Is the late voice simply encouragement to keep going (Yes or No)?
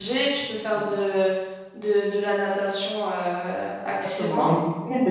No